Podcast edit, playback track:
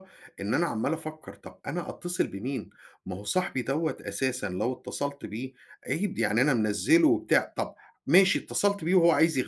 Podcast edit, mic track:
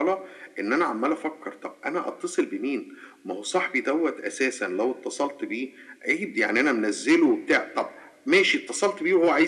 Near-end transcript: none

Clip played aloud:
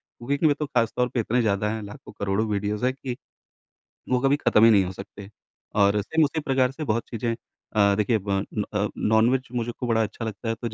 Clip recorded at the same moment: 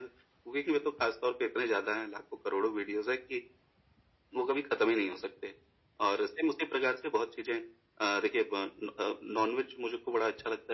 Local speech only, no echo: none

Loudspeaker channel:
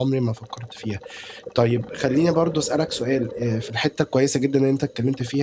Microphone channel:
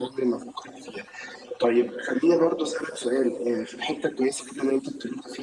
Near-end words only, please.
none

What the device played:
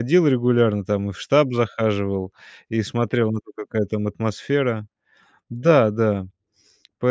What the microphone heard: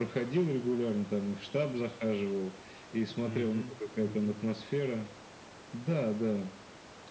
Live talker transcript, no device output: Мгм. Мгм.

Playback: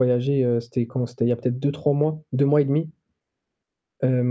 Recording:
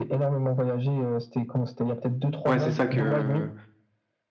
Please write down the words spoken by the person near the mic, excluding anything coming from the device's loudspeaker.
ouais, c'est ça que

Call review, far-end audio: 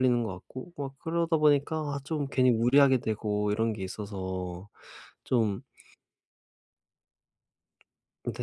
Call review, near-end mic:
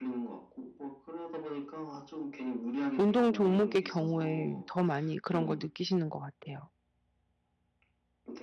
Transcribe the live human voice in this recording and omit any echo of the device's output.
운동 종목의 경우에 더 많이 그런 걸 느끼시는 것 같아요.

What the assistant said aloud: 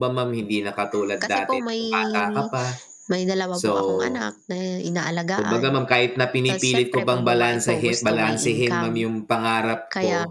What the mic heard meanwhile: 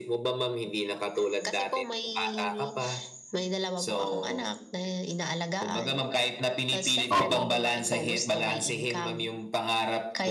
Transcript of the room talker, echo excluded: Opo.

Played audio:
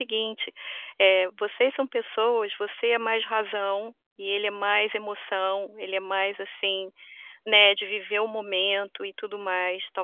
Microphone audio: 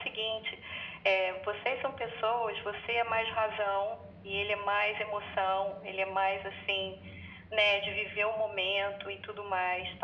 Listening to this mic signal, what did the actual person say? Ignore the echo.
none

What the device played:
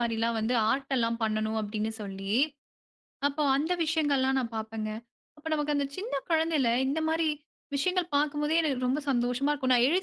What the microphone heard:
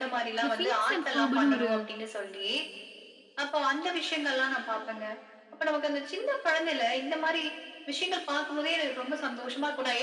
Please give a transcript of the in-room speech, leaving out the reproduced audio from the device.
இந்த "ஃபினிஷ் அண்ட் பர்புன்னு" ஒரு

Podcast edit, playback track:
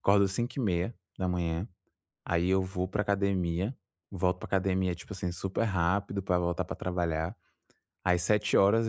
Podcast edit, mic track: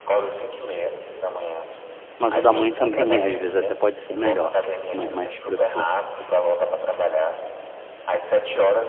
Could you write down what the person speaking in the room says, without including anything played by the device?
mas o da mãe também é. Às vezes até pode ser melhor, ma mais possível.

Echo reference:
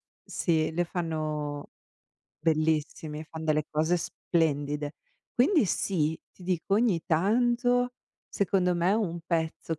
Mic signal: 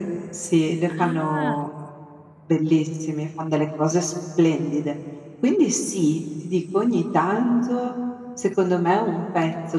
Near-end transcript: Ah,

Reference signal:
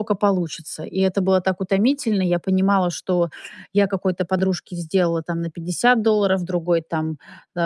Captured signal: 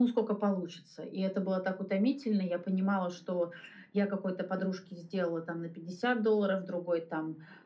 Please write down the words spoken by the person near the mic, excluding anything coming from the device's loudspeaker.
none

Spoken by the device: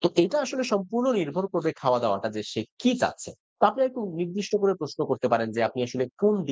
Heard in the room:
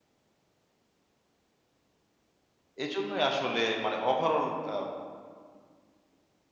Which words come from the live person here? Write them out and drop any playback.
এজন্যই আসলে মানে ওভারঅল আ

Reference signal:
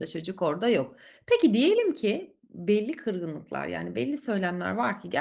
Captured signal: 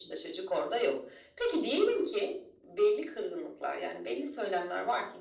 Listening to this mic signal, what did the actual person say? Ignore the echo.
none

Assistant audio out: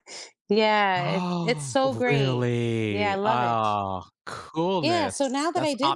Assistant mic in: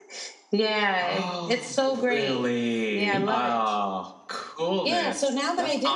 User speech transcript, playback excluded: You think.

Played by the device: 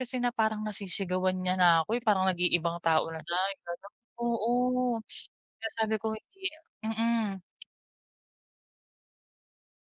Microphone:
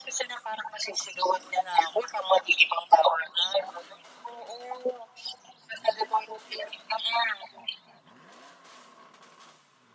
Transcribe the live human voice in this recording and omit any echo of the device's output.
none

